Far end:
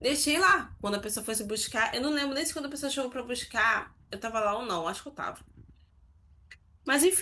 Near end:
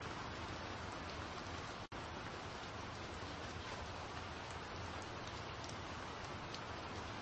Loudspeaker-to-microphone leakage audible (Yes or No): No